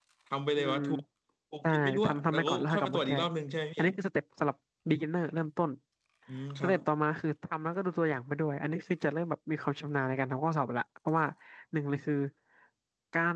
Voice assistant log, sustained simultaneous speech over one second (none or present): present